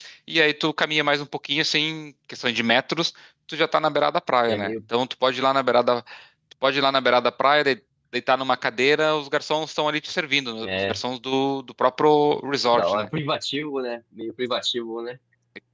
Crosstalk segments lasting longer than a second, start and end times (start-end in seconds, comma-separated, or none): none